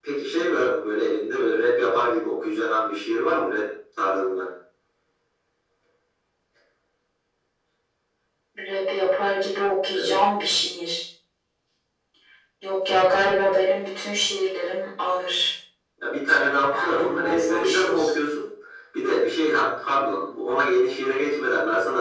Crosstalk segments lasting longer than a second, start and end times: 16.7-18.0

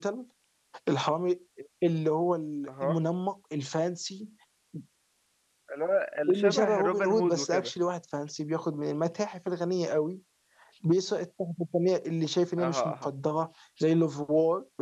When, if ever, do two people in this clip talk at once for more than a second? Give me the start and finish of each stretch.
6.3-7.7

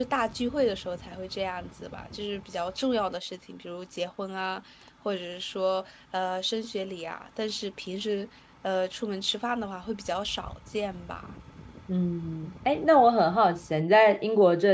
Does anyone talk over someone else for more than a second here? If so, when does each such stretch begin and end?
none

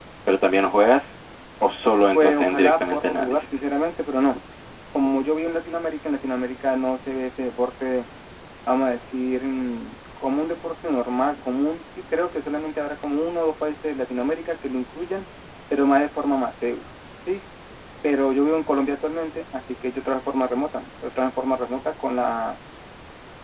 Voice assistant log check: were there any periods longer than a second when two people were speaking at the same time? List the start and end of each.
2.1-3.6

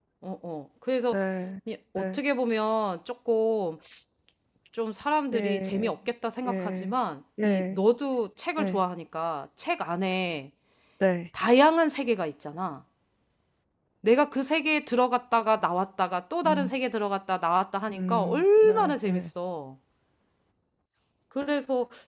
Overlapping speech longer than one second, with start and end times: 17.9-19.3

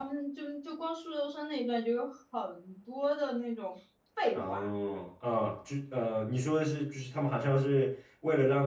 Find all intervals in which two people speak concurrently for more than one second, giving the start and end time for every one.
none

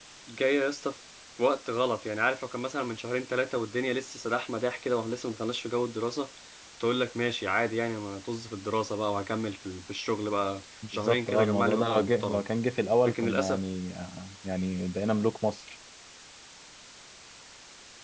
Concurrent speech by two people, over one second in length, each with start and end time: 10.9-12.4

